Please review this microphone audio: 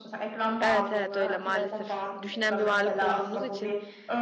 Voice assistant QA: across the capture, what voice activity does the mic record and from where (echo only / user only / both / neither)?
both